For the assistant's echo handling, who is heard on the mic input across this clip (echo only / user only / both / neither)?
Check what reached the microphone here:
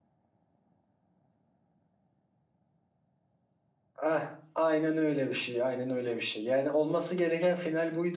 user only